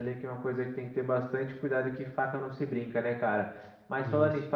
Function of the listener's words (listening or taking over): listening